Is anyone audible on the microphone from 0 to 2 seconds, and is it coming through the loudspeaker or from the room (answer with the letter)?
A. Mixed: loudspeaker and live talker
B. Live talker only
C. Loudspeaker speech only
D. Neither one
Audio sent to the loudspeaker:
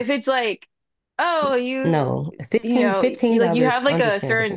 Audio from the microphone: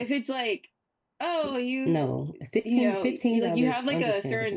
C